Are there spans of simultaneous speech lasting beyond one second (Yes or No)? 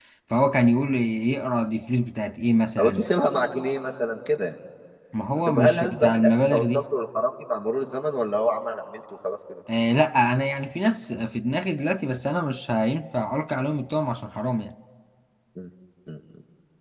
Yes